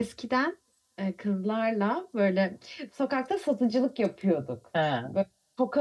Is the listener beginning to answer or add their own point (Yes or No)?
No